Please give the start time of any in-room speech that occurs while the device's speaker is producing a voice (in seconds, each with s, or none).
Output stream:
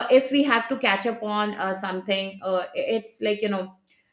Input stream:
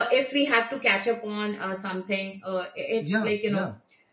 3.0 s